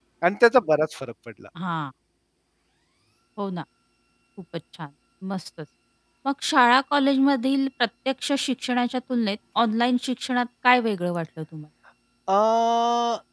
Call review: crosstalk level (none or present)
none